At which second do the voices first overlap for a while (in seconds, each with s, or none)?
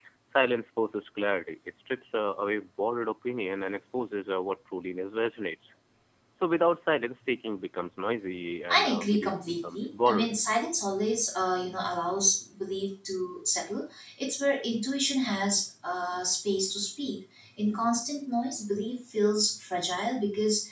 8.7 s